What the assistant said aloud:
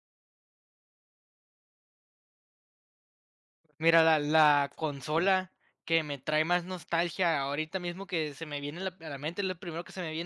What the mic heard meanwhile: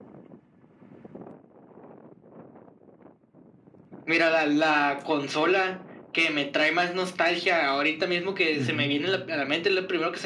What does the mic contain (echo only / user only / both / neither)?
both